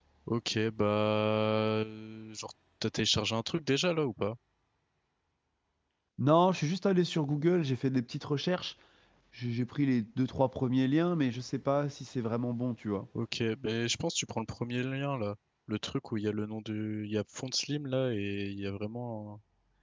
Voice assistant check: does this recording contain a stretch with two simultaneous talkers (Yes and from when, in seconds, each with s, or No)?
No